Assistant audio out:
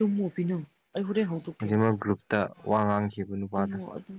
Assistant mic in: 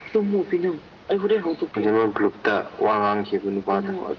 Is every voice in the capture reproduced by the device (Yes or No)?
Yes